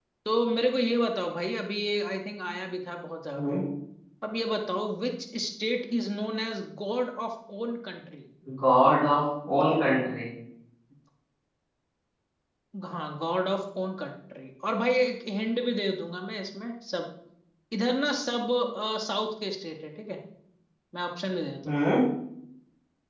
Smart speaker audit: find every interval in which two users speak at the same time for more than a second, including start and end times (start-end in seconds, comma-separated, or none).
none